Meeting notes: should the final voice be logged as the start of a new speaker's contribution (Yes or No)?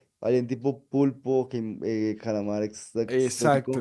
Yes